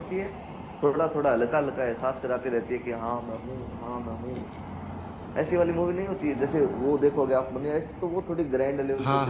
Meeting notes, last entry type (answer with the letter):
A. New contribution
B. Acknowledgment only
A